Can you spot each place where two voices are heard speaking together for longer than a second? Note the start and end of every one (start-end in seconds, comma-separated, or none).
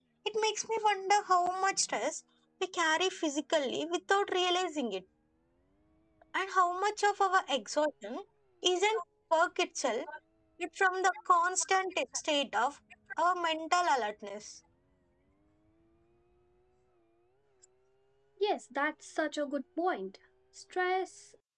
none